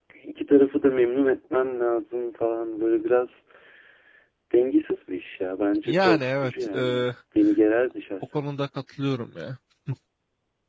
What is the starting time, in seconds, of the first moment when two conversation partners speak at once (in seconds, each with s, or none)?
5.8 s